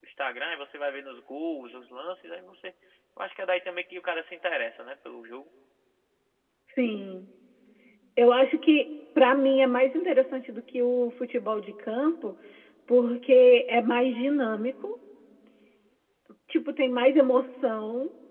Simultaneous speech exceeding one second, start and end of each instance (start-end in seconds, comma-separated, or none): none